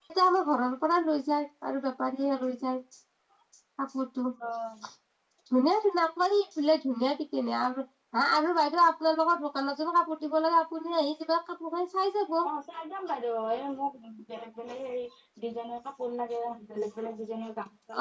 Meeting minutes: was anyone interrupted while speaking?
No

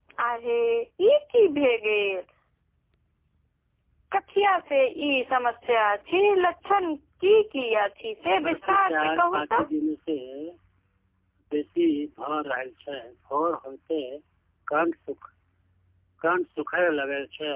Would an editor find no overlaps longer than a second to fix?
No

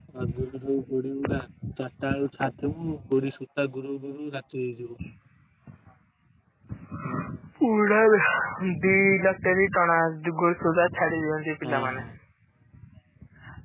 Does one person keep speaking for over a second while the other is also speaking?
No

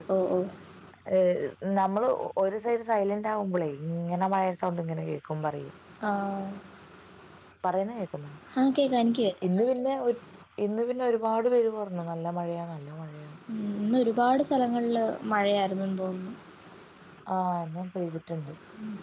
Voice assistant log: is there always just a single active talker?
Yes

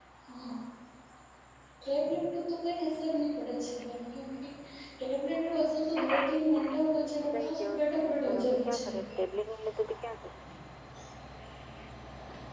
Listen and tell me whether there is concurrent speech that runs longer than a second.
Yes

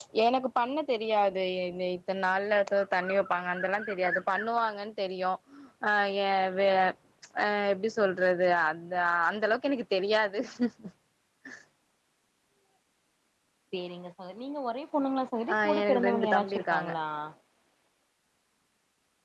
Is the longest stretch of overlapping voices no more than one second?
No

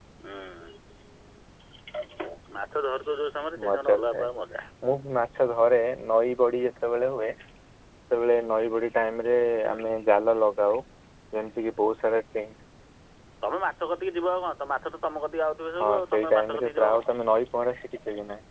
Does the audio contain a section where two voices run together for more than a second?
Yes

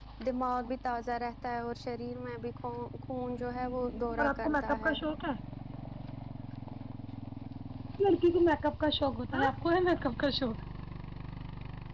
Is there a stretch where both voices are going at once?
Yes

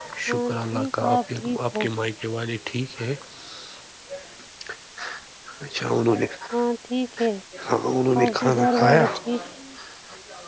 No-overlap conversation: No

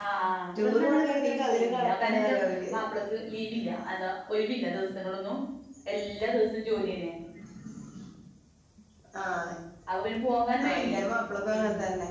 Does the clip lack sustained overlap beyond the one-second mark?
No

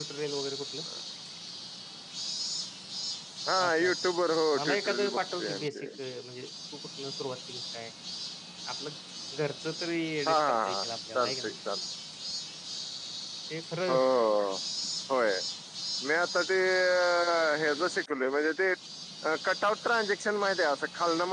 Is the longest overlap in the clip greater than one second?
Yes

